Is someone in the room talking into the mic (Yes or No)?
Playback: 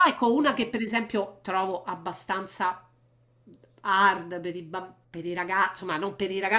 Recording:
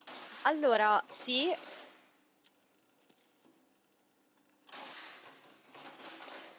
Yes